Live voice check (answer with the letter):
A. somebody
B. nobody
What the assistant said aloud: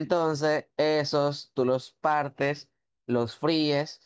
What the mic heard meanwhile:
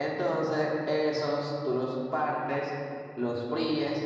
B